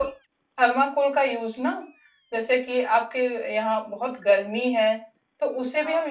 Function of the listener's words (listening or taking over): listening